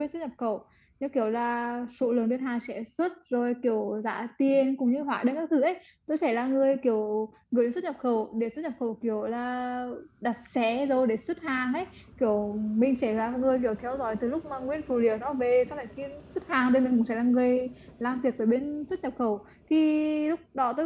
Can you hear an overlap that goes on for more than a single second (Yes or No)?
No